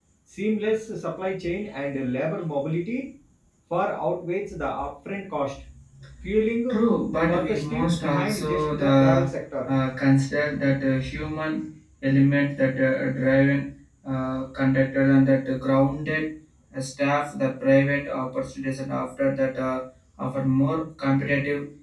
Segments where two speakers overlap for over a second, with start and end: 7.3-9.3

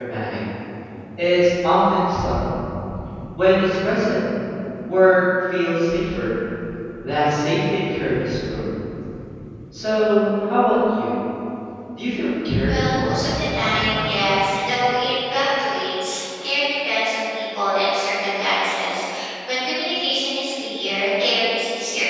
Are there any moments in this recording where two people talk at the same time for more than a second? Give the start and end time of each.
12.7-14.1

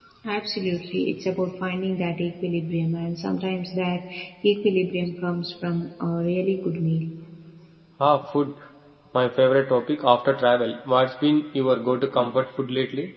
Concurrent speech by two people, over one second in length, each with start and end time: none

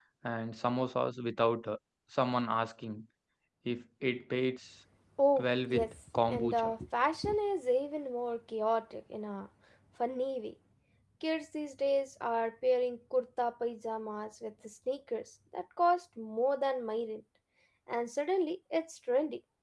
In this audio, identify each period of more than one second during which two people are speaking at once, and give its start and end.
5.4-6.7

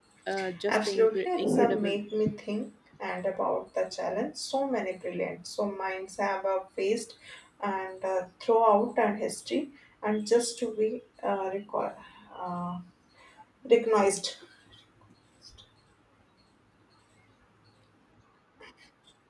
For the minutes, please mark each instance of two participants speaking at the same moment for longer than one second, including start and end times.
0.7-2.0

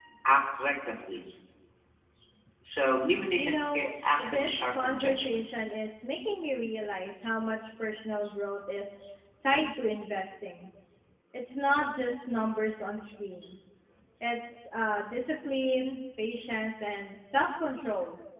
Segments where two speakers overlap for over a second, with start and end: 3.4-5.5

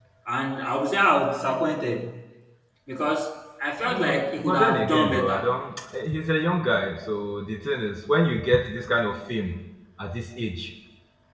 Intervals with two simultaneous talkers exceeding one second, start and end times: 3.9-5.5

